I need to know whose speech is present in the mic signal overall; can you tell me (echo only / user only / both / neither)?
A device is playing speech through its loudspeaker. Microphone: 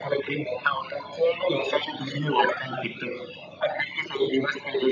echo only